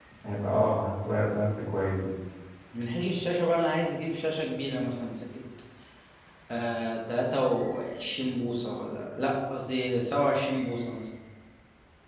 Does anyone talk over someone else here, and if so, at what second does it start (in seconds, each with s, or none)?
none